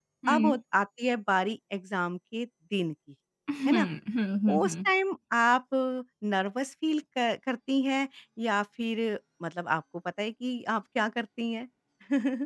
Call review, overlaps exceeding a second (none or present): none